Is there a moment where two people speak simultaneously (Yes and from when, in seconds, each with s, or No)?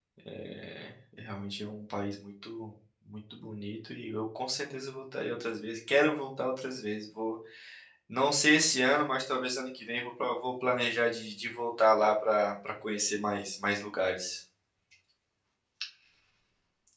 No